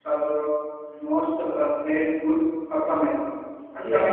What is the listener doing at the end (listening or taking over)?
listening